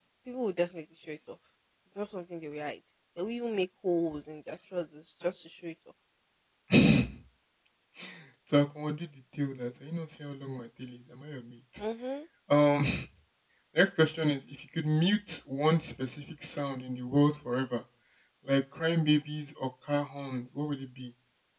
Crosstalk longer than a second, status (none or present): none